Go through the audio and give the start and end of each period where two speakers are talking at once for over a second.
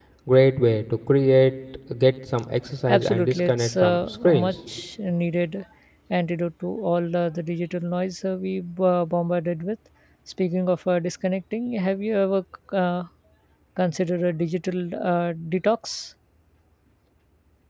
2.9-4.5

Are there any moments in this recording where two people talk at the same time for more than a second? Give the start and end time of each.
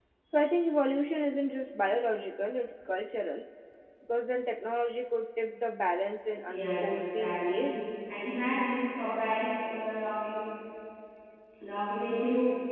6.5-7.7

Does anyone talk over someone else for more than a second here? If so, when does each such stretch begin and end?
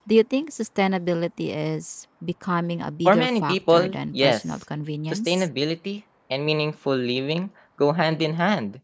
3.0-4.4

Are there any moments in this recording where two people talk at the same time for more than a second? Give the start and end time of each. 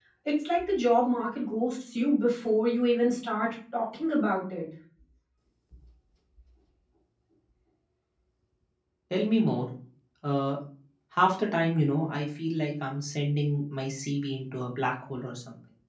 none

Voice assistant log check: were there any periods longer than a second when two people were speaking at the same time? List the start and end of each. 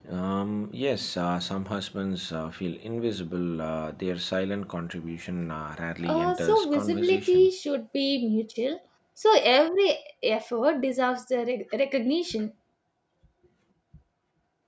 6.0-7.5

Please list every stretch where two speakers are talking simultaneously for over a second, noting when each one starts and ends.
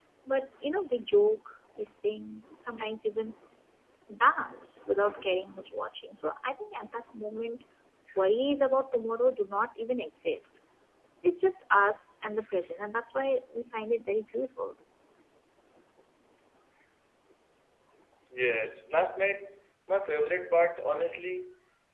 none

